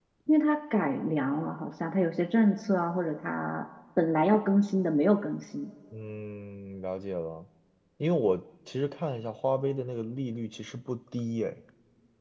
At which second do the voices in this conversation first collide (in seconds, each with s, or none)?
none